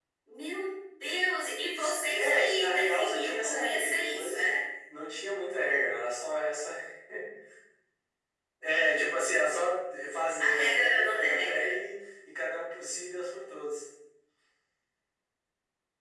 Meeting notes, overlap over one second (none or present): present